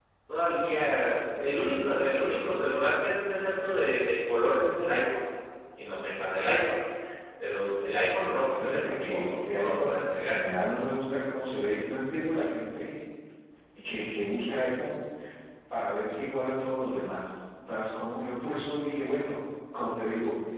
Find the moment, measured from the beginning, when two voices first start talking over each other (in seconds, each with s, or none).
8.6 s